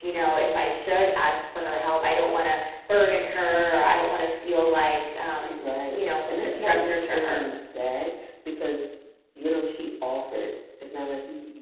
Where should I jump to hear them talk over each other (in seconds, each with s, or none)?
5.4 s